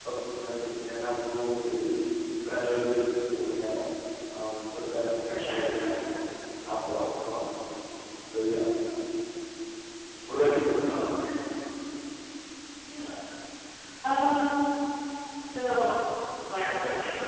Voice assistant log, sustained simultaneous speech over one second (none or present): none